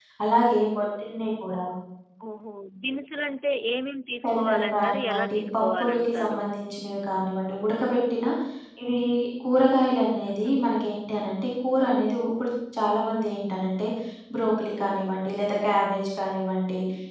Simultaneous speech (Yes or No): Yes